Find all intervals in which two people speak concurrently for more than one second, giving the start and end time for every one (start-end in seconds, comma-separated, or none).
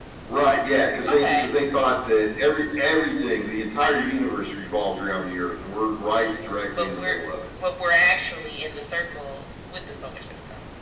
none